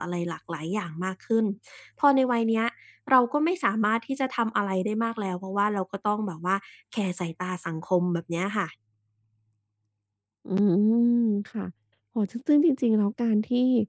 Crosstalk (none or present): none